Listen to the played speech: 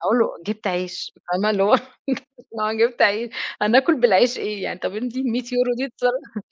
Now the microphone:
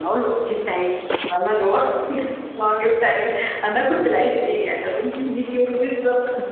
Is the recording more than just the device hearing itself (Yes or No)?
No